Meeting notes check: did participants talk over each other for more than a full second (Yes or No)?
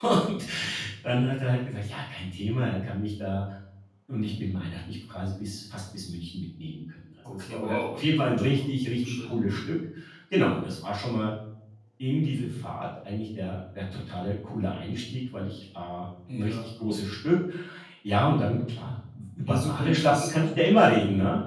Yes